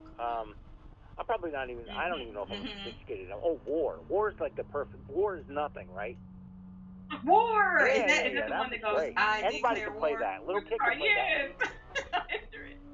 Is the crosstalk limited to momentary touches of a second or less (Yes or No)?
No